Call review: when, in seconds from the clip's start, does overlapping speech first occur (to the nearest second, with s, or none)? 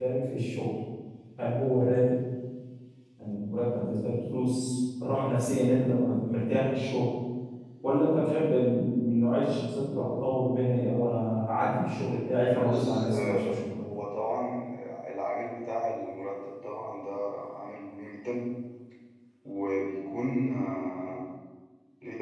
12 s